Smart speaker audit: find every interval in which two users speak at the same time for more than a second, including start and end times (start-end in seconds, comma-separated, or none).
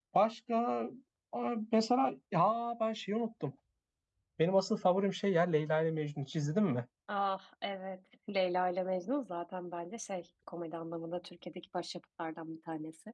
none